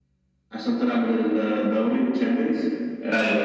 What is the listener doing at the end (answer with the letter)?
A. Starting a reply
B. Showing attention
B